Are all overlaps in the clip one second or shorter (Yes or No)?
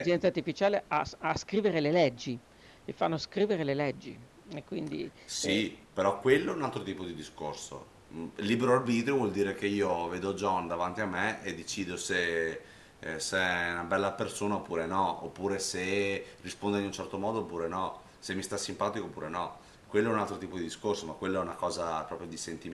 Yes